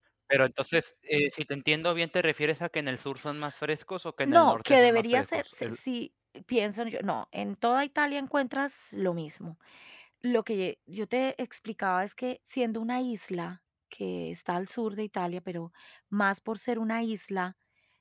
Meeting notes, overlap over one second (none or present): present